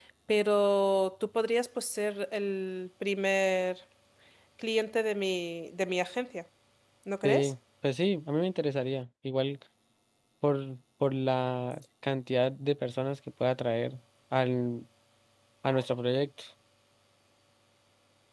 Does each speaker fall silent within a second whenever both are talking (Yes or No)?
Yes